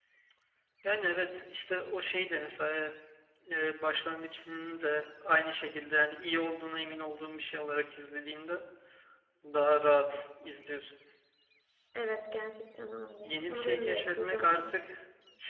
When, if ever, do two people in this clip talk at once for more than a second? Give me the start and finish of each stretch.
13.2-14.7

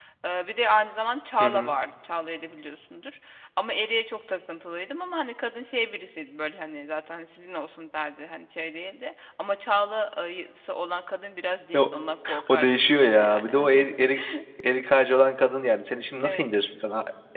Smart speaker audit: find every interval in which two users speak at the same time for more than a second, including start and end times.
12.5-13.7

